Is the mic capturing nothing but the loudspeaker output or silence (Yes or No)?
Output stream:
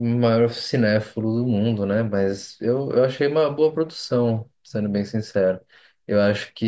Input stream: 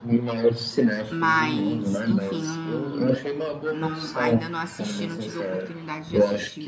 No